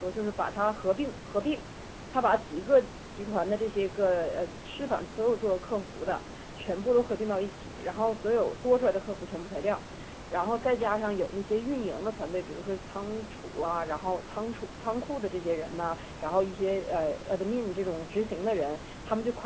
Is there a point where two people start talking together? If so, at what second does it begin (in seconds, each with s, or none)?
none